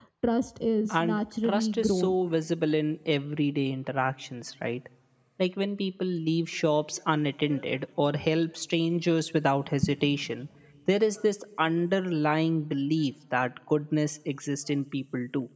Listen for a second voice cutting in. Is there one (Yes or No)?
Yes